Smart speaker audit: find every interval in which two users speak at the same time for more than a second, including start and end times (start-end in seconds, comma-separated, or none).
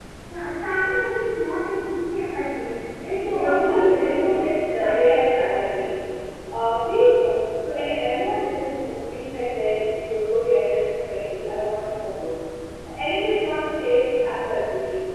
3.2-5.7